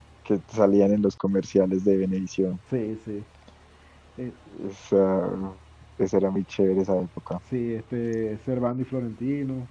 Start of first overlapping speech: none

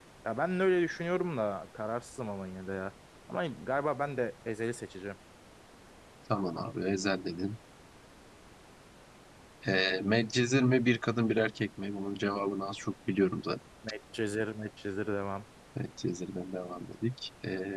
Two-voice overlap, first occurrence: none

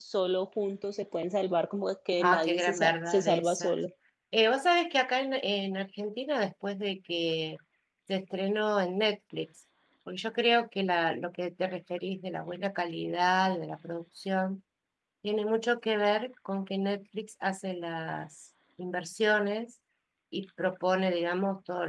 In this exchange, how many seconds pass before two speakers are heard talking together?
2.2 s

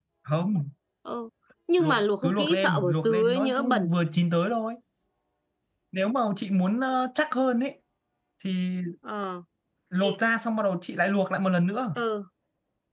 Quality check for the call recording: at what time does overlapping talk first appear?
1.8 s

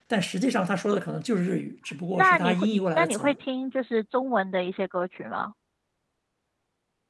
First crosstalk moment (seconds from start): 2.1 s

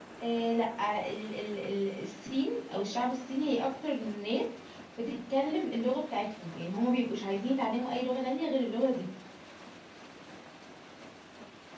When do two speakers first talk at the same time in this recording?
none

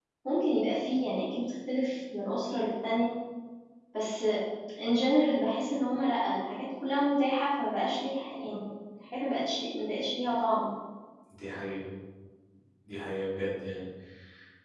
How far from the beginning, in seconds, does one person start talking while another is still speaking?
none

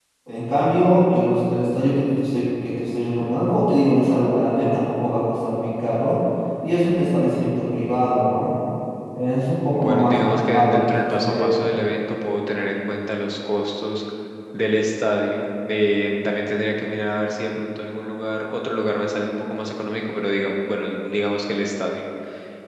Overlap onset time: 9.7 s

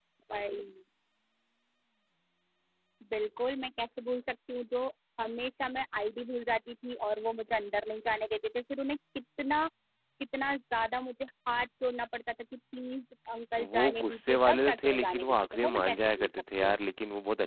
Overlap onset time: 13.6 s

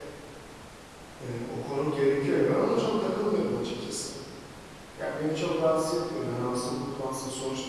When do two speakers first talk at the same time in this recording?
none

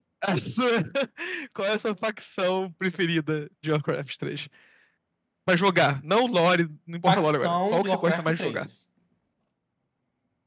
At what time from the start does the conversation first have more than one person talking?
7.1 s

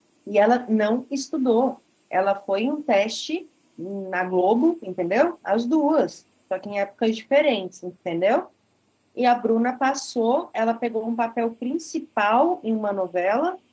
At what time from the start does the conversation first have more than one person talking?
none

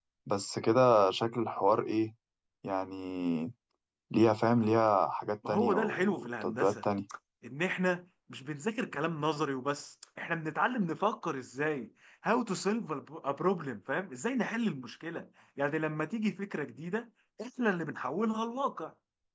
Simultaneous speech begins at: 5.5 s

